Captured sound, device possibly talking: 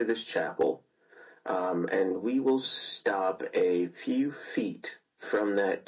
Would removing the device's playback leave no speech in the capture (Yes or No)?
Yes